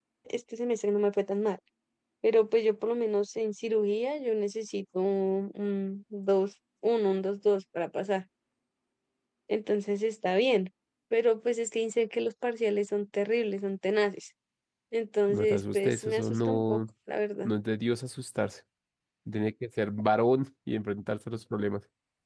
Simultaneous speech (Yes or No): Yes